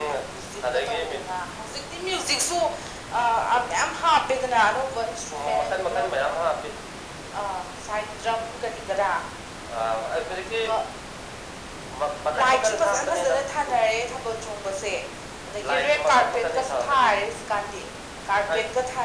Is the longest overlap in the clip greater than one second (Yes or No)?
Yes